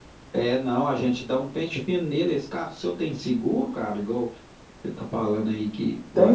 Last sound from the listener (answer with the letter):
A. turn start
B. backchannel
A